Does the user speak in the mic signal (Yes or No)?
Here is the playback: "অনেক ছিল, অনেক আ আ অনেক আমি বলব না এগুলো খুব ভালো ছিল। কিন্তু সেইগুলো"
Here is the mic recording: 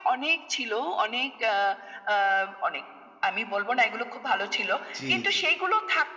Yes